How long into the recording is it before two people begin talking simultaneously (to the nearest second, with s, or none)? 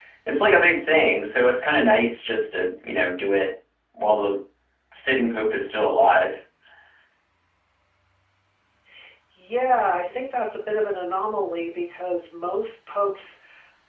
none